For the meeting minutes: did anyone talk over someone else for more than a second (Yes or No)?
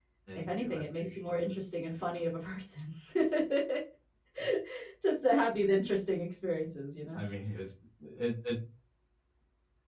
Yes